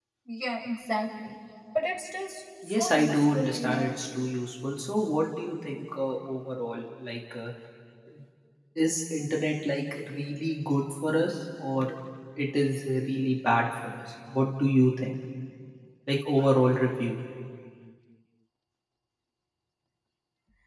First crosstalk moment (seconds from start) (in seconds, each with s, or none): 2.6 s